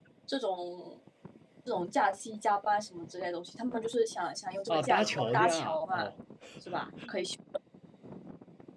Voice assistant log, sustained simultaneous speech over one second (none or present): present